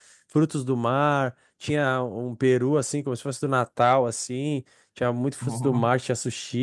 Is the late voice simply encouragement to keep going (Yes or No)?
Yes